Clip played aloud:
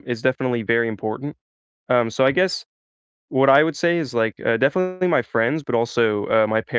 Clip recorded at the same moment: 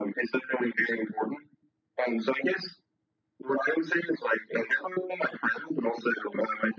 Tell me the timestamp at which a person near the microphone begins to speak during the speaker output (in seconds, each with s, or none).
none